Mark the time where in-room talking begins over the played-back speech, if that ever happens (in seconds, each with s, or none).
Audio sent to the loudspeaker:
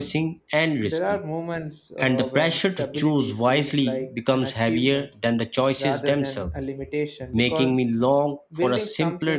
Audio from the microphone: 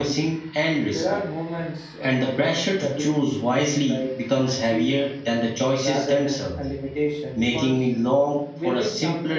none